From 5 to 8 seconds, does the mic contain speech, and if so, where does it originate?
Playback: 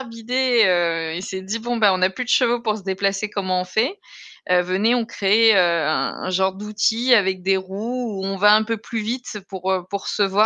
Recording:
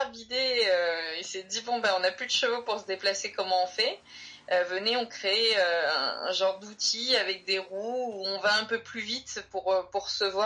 echo only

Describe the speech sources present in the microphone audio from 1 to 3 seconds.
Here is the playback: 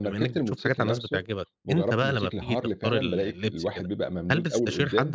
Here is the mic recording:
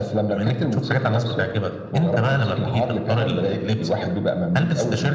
echo only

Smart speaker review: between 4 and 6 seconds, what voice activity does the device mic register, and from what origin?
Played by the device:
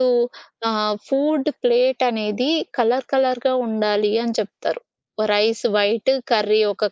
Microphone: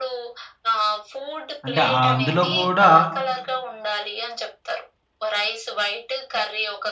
echo only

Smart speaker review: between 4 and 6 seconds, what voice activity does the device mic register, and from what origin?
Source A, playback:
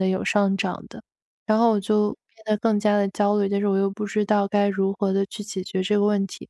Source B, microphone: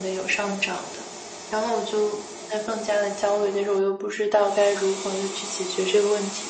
echo only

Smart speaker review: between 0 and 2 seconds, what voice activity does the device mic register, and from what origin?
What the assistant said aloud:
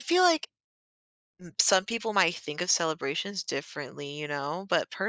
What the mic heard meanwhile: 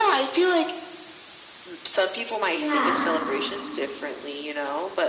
echo only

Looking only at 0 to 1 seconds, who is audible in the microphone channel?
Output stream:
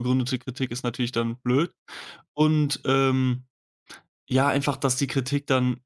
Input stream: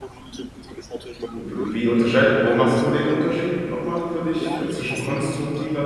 echo only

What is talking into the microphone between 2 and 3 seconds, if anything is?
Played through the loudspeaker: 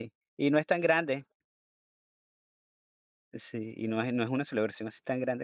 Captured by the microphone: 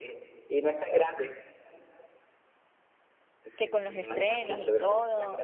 neither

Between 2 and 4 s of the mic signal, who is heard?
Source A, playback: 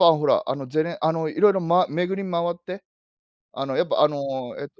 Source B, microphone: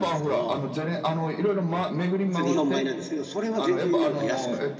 both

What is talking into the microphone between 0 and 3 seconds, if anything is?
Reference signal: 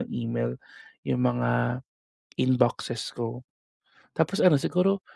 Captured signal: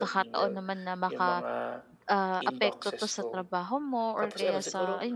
both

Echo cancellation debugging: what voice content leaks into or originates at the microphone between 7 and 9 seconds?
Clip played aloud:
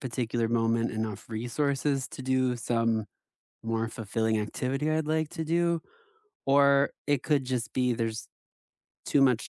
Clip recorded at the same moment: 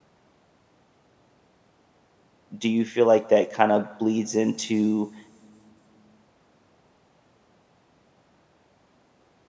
neither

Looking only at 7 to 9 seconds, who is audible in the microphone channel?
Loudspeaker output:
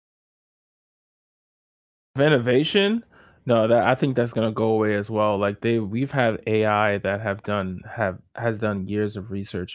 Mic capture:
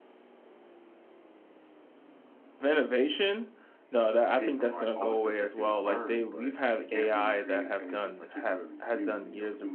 both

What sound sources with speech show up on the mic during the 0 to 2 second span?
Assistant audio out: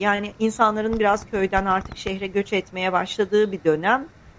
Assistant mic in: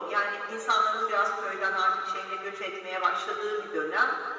echo only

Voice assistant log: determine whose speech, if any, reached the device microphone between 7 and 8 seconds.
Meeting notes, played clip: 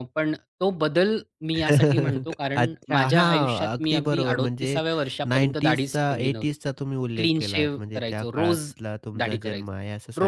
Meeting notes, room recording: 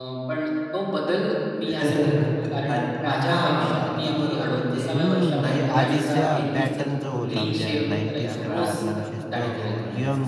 both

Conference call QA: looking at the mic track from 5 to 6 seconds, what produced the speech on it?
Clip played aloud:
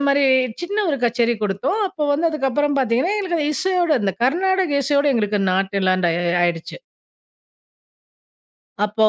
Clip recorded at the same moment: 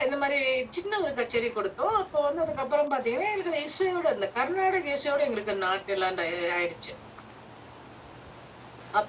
echo only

